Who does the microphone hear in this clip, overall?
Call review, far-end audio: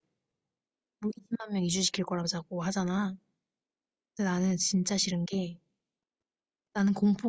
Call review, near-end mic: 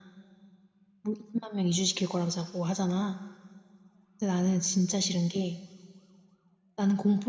echo only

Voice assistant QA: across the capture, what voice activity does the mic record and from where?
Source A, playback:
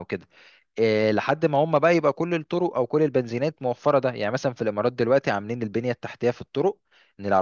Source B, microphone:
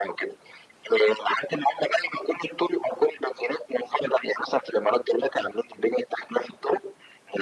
echo only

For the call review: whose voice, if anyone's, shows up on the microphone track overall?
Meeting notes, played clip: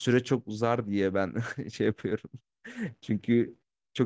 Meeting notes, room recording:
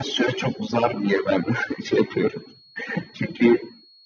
echo only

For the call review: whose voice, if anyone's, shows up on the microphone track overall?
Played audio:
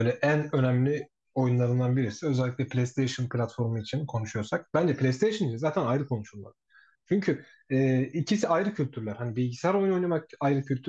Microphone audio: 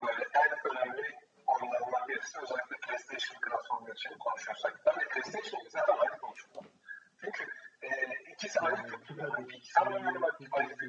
both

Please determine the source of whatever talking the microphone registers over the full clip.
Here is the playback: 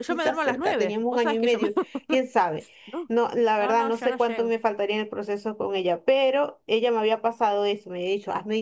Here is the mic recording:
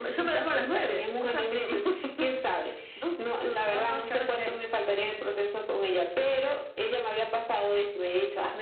echo only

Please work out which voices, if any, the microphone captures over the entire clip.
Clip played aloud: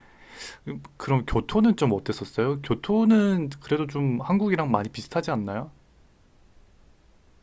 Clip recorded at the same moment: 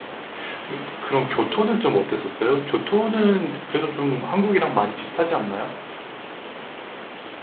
echo only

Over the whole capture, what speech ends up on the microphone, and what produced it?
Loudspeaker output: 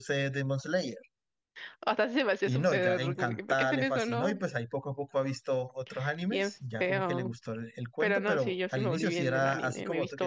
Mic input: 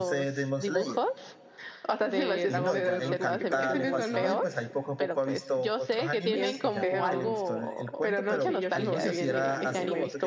both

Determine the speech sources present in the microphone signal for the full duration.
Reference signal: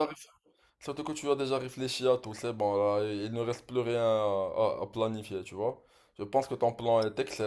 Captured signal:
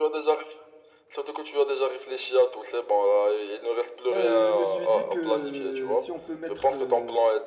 both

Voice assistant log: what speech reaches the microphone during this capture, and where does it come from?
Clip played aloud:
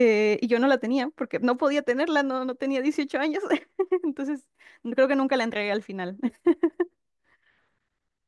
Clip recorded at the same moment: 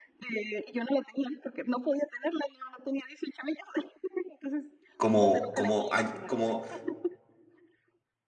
both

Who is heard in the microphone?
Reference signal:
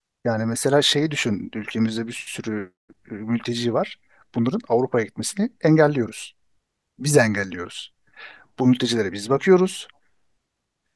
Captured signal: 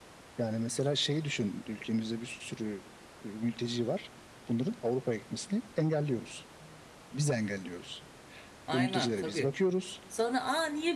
both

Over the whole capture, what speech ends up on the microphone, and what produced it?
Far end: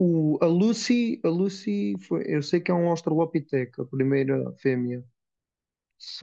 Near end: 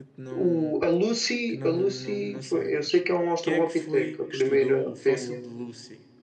both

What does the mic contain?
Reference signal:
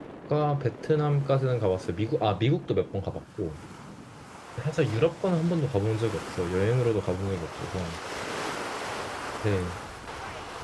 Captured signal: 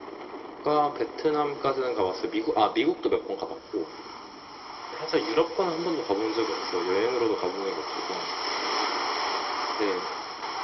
echo only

